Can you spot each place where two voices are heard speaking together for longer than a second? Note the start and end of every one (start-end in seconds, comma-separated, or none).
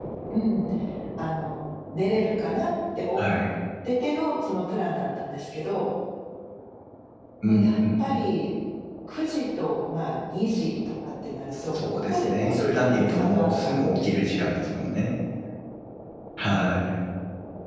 11.6-14.4